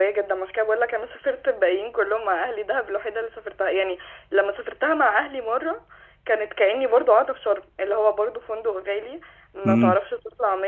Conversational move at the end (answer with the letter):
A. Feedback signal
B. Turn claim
A